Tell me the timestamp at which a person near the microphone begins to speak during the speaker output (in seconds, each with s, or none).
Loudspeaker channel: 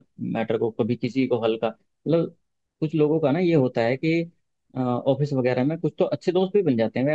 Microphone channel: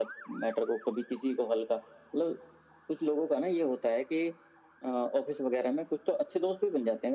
none